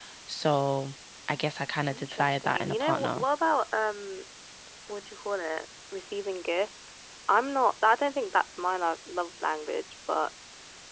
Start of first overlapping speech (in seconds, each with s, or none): 1.9 s